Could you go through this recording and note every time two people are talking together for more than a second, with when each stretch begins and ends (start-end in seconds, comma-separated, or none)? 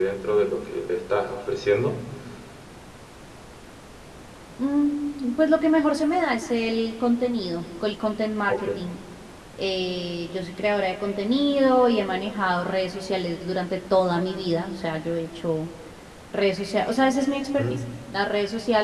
none